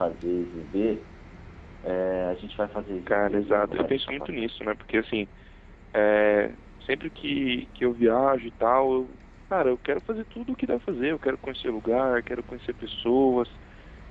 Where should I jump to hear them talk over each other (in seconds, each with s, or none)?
3.1 s